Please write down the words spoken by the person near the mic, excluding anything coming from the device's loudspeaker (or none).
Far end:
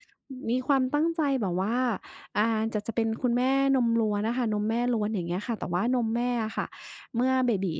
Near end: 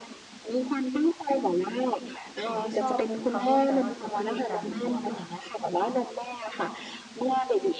สิ่งที่ชอบทำร่วมกันมากที่สุดก็คือการดูดวงค่ะ